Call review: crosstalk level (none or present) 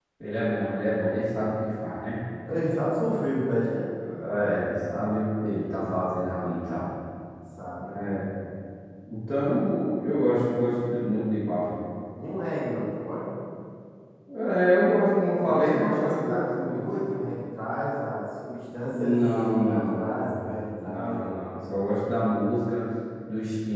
present